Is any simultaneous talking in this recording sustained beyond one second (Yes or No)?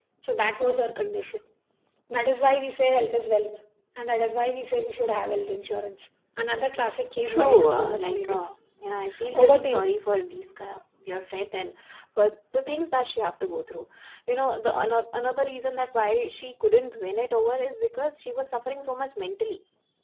Yes